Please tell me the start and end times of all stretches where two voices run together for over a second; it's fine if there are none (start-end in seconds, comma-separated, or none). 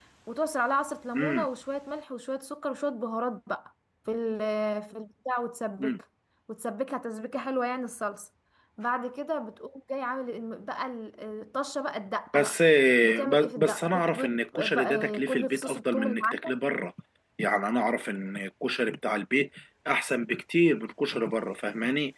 13.2-16.4